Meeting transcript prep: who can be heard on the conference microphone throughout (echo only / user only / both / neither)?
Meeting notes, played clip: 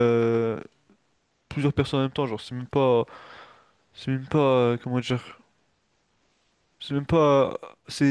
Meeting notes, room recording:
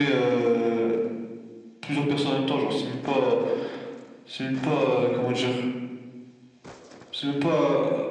echo only